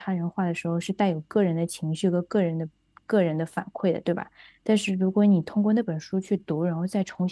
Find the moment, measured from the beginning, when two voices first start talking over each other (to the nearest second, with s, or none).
none